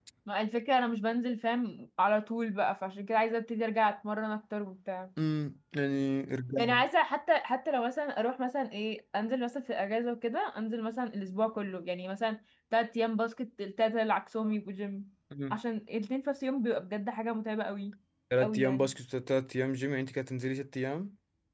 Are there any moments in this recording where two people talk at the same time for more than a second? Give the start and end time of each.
none

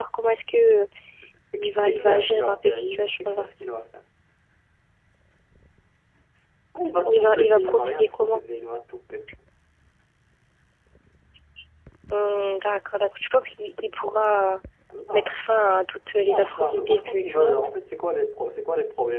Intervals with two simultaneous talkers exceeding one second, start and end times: 1.6-3.4, 7.0-8.4, 16.2-17.7

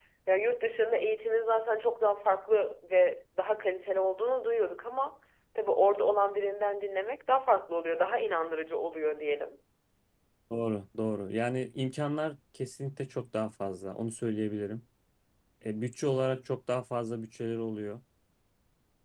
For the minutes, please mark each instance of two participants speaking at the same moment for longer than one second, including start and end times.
none

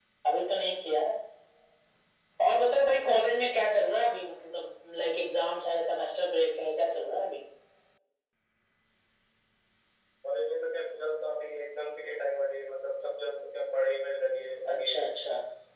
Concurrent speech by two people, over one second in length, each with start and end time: none

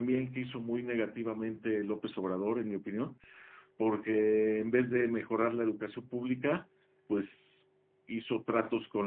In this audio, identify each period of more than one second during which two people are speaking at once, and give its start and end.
none

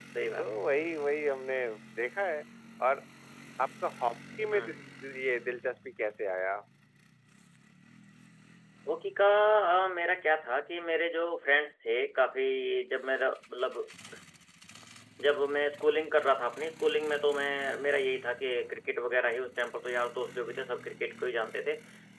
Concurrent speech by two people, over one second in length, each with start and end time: none

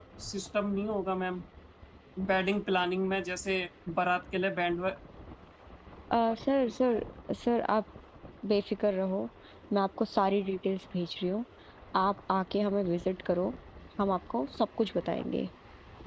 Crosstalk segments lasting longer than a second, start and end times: none

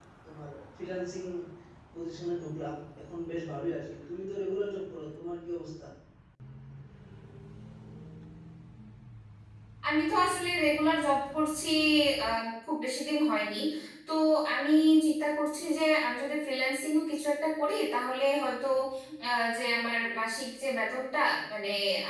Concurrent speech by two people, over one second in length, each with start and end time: none

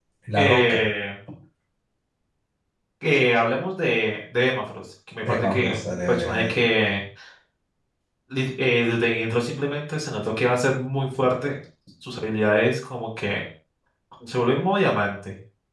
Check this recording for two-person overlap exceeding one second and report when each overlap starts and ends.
5.2-6.6

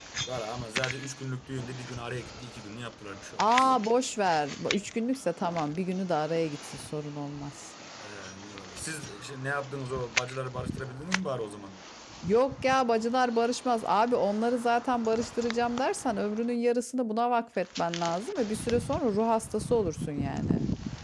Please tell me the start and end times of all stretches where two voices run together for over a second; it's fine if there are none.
none

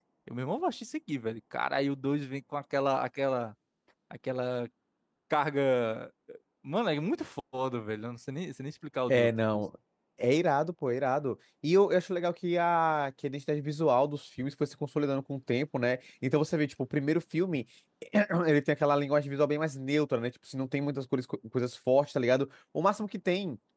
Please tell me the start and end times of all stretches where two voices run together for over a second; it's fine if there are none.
none

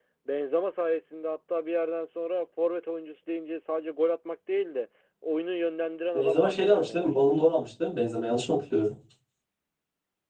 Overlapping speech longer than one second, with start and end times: 6.1-7.6

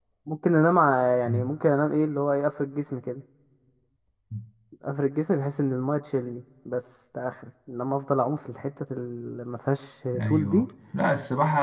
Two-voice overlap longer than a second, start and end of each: none

